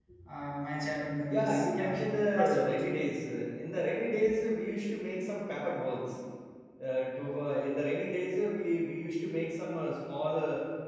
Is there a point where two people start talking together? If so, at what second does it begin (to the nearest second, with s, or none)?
1 s